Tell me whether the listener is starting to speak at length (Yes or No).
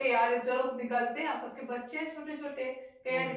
No